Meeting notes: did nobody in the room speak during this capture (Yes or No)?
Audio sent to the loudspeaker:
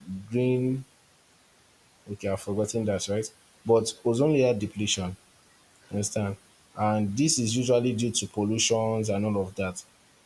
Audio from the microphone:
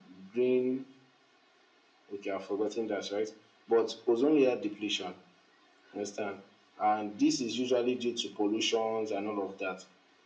Yes